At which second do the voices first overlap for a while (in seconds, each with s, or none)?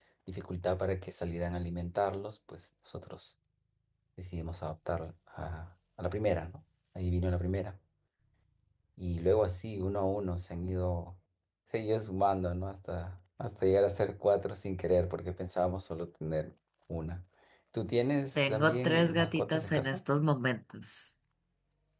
18.4 s